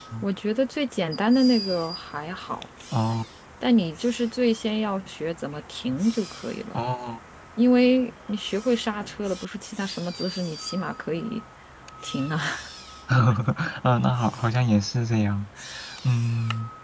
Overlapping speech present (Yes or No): No